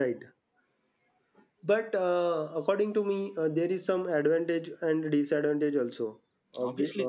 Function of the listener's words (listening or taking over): taking over